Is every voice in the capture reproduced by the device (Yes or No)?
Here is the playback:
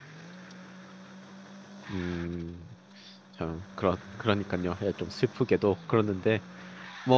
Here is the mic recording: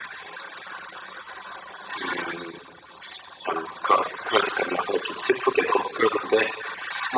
Yes